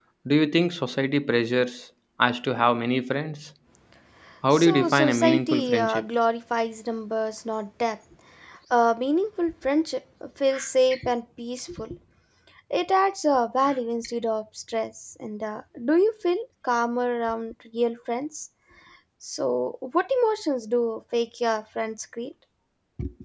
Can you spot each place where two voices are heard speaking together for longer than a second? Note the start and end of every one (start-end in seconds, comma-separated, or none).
4.5-6.1